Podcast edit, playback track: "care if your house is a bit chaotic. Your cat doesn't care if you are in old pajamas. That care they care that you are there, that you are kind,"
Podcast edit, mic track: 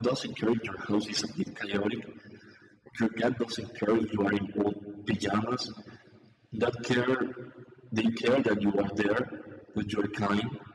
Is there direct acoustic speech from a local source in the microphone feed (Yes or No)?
No